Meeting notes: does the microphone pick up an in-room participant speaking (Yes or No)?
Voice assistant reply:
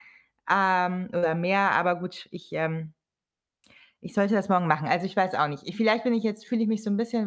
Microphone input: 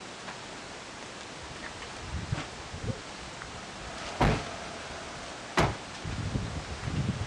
No